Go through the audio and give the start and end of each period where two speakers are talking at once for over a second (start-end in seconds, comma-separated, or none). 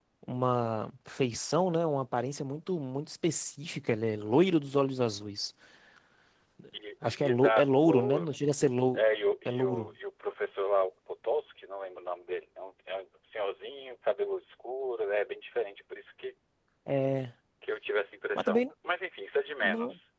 7.1-8.3